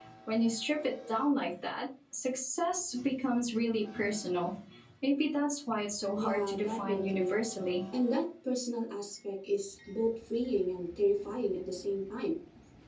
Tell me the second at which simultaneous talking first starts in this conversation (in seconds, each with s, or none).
6.2 s